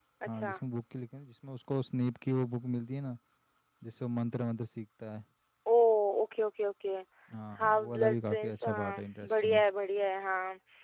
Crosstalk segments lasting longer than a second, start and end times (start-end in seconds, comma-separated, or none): 7.6-9.6